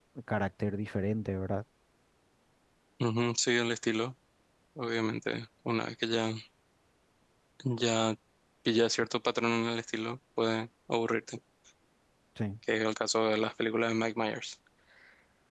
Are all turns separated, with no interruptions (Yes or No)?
Yes